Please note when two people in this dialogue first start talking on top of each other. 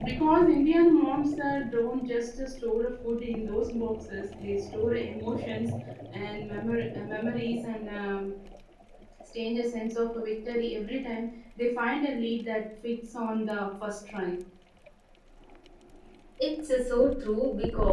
none

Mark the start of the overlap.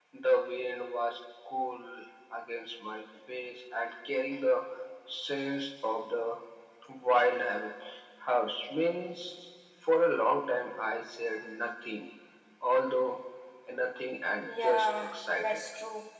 14 s

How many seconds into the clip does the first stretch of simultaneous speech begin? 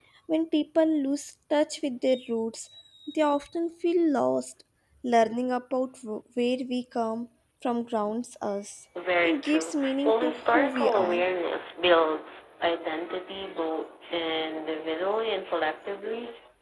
9 s

